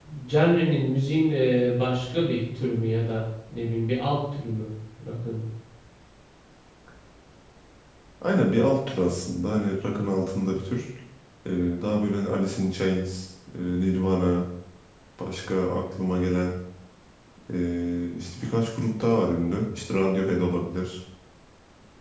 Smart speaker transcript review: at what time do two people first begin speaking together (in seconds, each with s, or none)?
none